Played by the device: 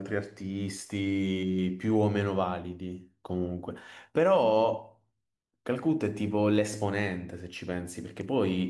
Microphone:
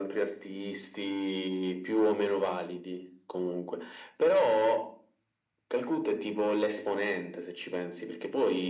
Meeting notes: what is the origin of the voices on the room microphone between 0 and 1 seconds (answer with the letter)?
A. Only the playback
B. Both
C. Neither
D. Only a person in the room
A